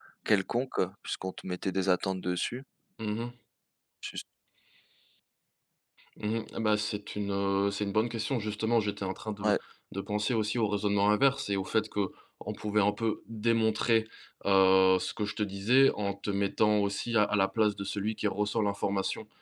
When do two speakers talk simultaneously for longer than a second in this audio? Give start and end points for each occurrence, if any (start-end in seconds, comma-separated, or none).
none